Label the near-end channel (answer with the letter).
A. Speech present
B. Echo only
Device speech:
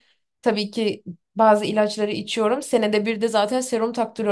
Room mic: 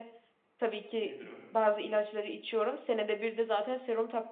A